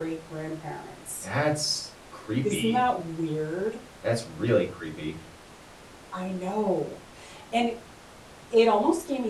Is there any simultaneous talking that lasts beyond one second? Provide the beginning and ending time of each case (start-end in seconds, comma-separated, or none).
none